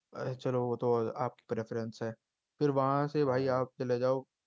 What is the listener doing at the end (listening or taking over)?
listening